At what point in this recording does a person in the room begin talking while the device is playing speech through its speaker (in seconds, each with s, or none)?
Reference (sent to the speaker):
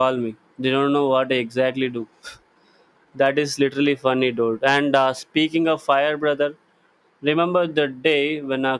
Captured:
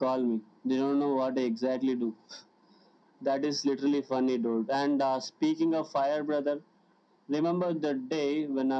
none